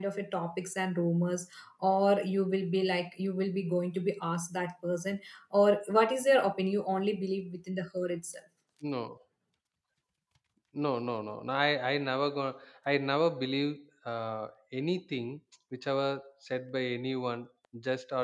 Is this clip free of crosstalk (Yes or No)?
Yes